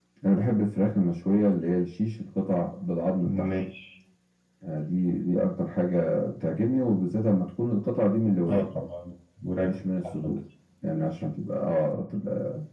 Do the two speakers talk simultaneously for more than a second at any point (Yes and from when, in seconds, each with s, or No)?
No